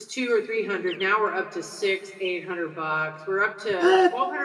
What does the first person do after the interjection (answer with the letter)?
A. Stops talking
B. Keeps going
B